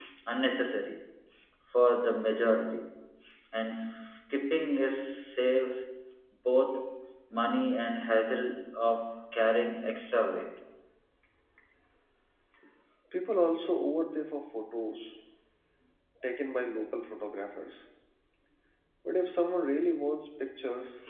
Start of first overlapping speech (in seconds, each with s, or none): none